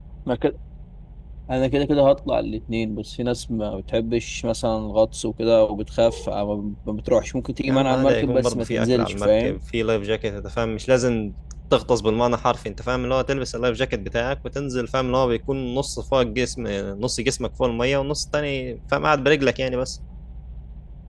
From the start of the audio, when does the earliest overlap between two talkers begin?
7.7 s

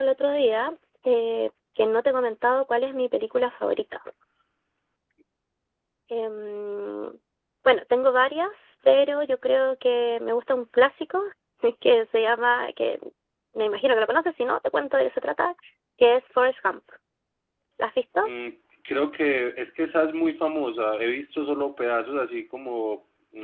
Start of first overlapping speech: none

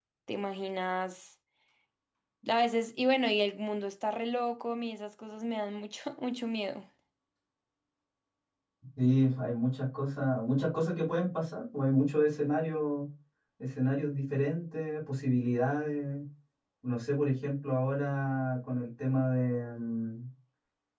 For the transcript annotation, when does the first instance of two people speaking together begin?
none

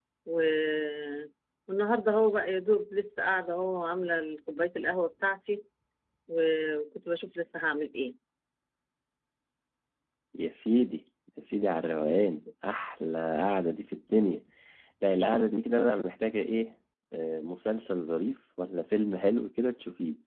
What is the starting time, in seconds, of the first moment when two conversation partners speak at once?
none

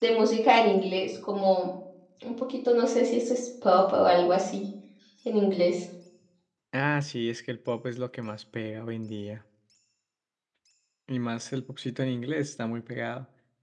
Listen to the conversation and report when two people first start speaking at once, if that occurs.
none

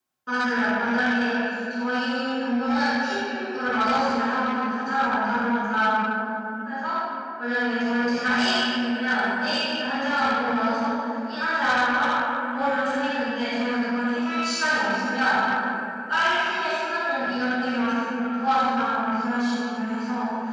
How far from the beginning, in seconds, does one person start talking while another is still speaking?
none

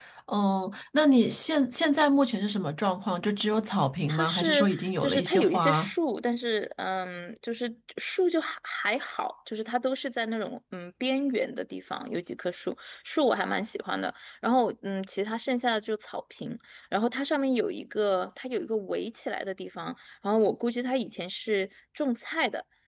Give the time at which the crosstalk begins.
4.1 s

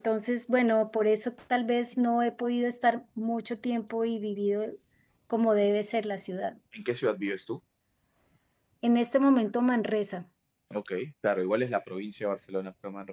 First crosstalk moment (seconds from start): none

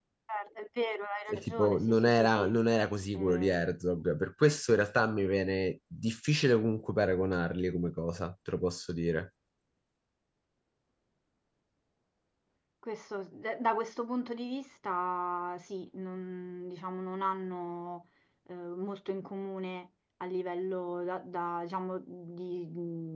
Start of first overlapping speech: 1.3 s

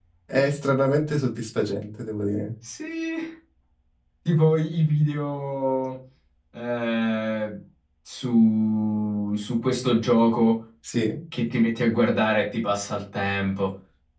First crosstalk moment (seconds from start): none

